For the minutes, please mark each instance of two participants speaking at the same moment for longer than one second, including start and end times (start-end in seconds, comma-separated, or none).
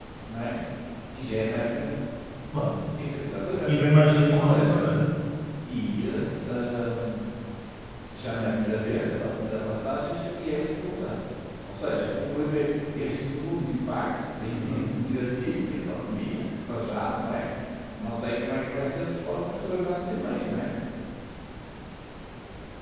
none